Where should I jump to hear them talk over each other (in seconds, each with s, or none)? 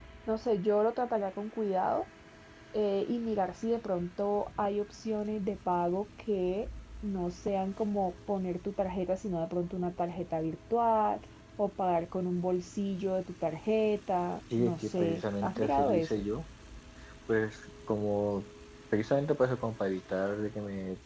14.5 s